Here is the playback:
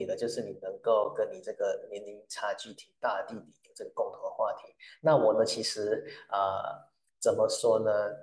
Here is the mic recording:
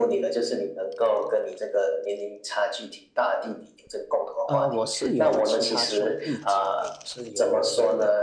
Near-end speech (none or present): present